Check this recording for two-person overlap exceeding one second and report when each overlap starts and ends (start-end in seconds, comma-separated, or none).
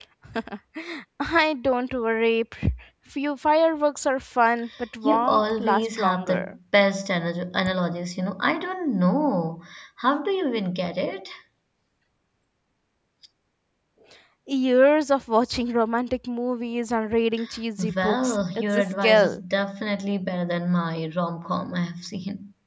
5.0-6.3, 18.0-19.4